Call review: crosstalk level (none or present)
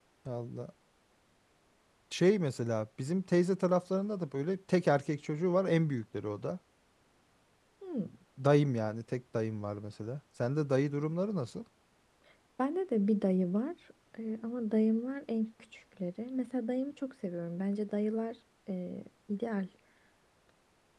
none